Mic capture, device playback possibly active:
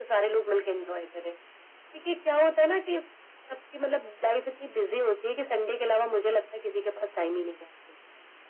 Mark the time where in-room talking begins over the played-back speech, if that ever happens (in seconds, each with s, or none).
none